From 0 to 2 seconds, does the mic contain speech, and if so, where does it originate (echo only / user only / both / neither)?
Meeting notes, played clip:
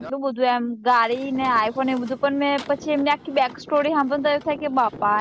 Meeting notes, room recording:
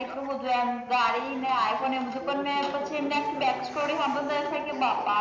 echo only